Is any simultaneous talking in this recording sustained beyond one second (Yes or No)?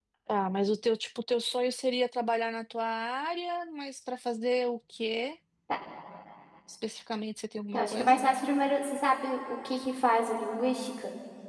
No